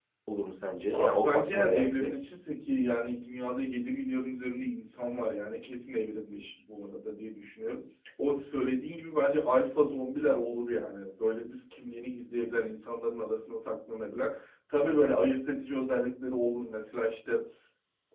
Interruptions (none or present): present